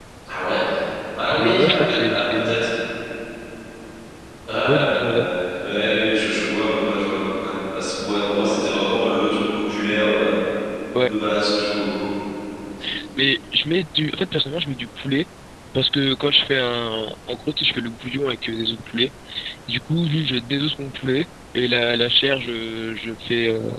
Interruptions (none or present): present